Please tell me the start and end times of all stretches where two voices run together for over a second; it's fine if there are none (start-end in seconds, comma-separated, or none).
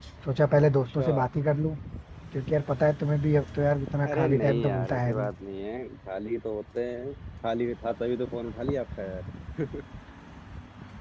4.1-5.3